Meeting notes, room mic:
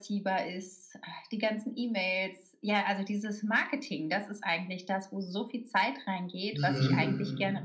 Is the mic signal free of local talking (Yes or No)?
No